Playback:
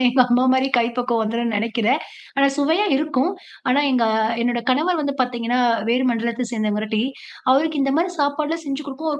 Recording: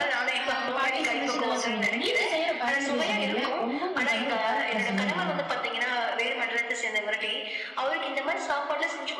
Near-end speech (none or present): present